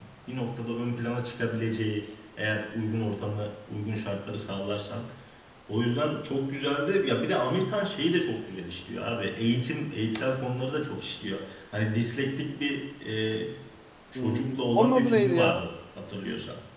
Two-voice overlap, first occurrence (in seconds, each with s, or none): 14.2 s